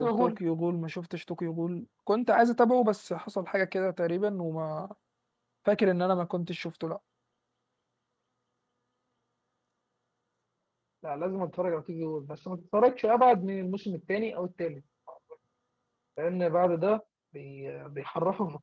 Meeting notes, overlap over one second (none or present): none